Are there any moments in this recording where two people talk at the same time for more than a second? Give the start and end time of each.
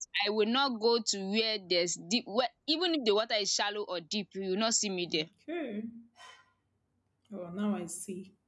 none

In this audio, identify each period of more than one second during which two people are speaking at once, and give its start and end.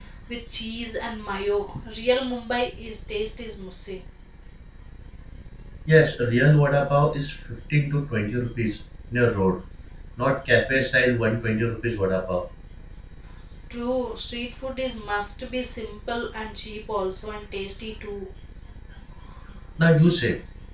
none

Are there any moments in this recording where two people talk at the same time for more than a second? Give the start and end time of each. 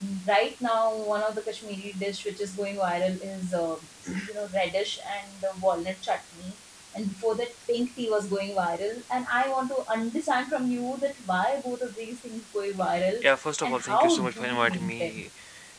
13.6-15.2

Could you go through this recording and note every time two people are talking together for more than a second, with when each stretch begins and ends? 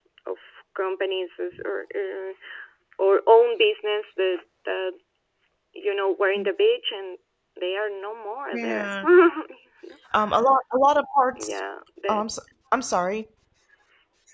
none

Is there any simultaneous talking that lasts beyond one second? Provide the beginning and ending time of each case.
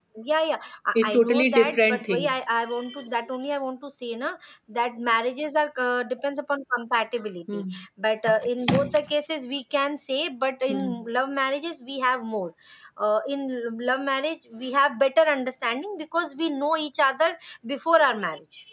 0.9-2.4

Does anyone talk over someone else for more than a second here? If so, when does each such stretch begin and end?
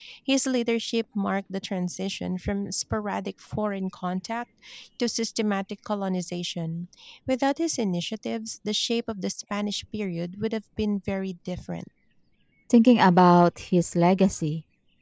none

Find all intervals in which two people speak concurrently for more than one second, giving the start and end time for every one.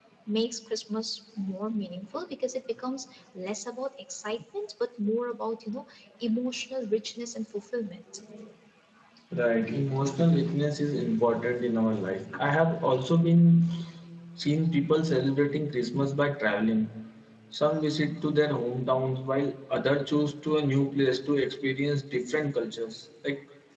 none

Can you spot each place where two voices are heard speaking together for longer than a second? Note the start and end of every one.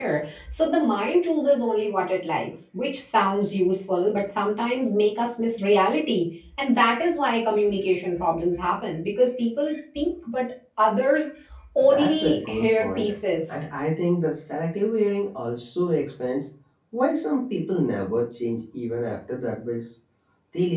11.8-13.1

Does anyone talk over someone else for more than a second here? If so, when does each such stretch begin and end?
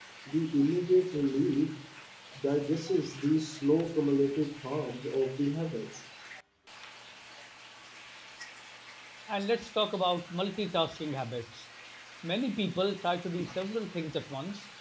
none

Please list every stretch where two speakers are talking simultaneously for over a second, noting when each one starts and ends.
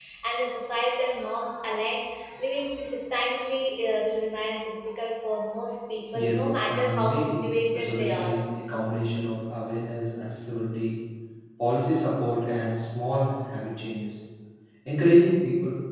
6.1-8.3

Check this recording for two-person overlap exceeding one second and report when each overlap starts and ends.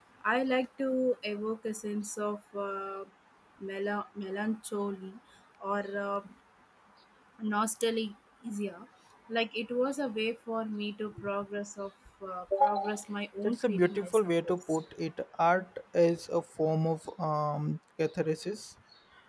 13.4-14.7

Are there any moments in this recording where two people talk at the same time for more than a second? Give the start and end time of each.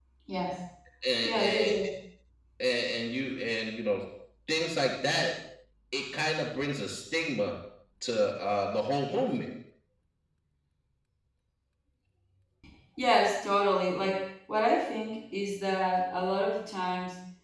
none

